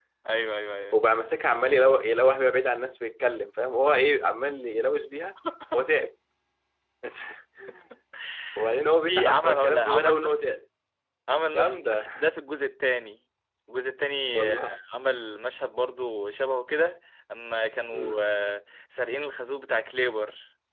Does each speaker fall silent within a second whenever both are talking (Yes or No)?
No